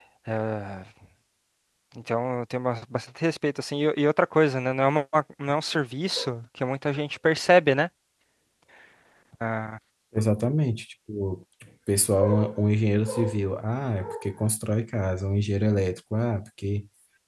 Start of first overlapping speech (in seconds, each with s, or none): none